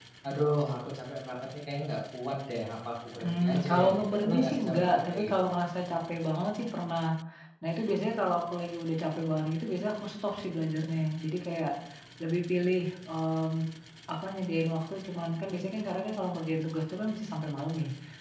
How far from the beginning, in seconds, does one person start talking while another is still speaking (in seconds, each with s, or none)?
3.2 s